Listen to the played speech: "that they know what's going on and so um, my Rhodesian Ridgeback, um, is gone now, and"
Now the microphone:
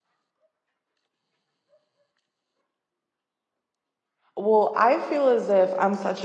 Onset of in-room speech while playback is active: 4.4 s

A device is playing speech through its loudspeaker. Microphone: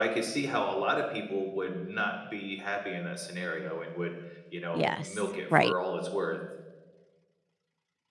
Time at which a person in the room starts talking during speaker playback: 4.7 s

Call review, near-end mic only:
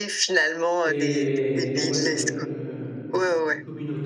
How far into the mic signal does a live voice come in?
0.8 s

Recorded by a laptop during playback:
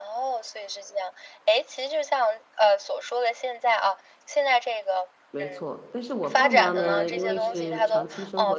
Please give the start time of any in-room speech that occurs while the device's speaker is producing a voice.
5.3 s

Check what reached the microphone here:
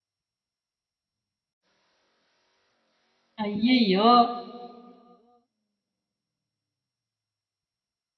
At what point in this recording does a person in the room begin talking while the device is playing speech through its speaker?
3.4 s

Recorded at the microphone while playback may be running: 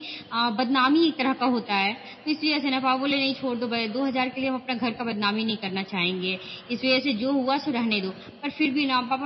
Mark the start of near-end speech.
none

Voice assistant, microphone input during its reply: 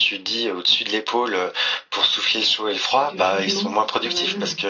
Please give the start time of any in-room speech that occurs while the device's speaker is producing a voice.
3.0 s

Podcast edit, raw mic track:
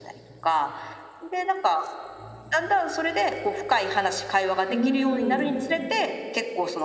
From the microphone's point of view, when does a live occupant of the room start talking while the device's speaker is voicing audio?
4.7 s

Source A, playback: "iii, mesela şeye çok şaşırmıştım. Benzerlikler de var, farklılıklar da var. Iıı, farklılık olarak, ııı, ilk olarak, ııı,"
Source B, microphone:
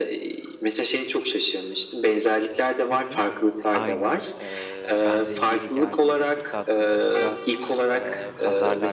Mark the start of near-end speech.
2.9 s

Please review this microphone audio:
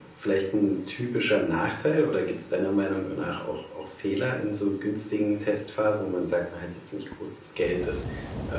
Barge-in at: none

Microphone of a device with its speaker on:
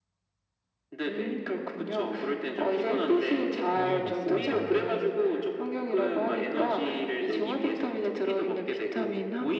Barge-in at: 3.7 s

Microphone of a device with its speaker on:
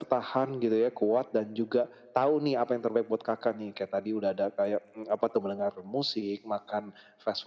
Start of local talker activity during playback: none

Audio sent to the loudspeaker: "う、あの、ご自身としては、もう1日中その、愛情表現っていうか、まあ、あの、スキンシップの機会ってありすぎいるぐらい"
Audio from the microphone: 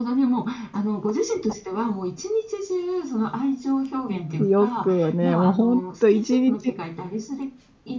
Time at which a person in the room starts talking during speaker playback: 4.5 s

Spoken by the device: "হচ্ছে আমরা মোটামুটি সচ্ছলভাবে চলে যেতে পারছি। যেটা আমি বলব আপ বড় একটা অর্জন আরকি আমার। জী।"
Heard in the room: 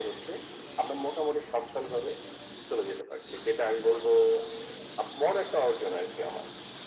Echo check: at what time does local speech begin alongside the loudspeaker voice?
none

